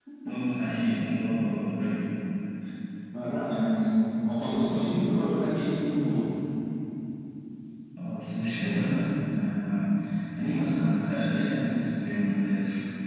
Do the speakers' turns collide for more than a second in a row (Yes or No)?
No